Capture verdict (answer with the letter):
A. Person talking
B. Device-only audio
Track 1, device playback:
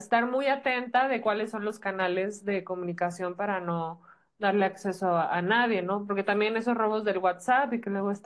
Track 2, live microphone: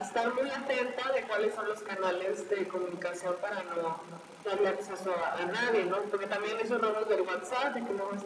B